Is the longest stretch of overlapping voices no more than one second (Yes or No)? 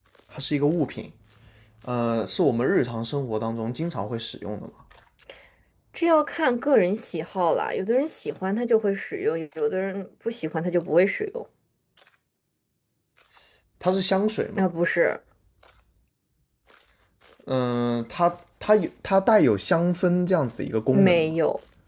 Yes